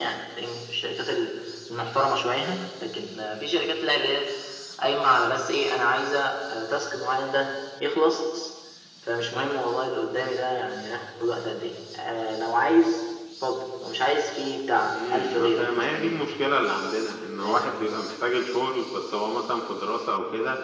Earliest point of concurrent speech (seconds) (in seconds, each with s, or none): 14.9 s